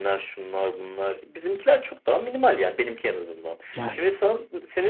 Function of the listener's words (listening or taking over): listening